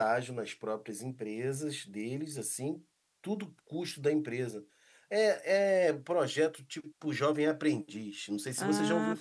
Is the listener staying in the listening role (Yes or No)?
No